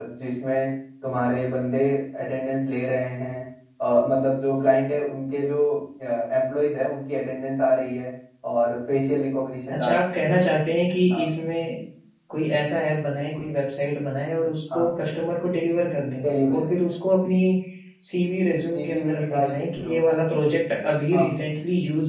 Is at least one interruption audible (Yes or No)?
Yes